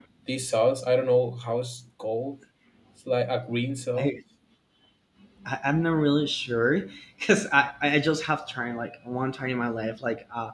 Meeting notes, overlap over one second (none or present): none